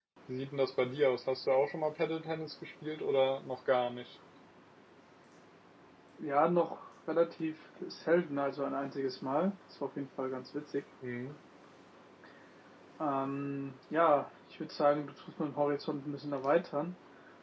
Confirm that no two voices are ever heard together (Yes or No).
Yes